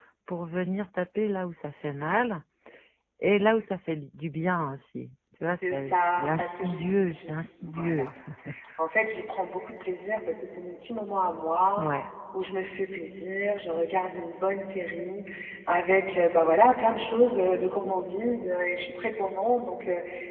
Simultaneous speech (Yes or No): Yes